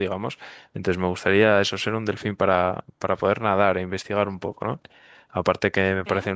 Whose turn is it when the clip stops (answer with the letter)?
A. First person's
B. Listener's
A